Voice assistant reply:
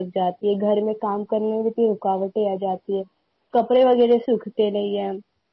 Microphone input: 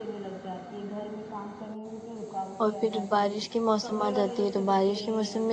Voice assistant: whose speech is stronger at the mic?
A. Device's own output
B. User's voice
B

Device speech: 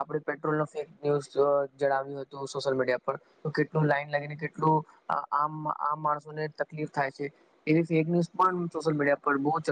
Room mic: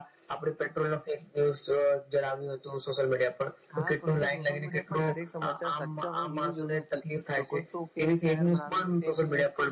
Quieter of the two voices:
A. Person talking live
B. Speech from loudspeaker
A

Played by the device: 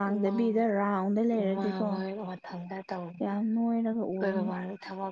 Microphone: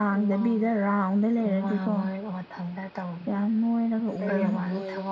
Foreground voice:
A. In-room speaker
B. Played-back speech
B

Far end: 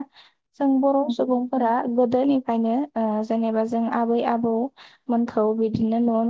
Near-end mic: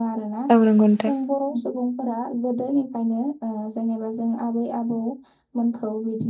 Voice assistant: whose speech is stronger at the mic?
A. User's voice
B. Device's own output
A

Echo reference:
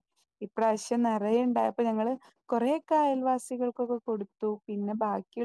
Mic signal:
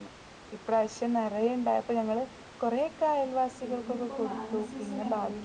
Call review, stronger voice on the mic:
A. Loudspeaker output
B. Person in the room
A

